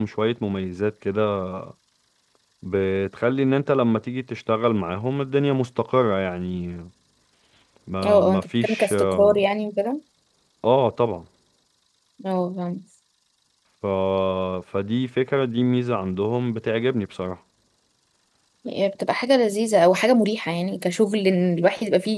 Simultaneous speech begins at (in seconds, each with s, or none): 8.1 s